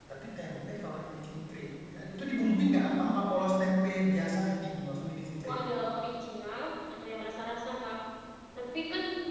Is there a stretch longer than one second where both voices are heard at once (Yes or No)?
No